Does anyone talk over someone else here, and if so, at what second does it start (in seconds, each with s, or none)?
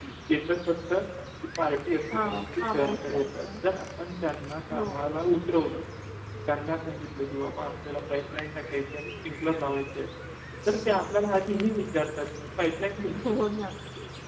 2.1 s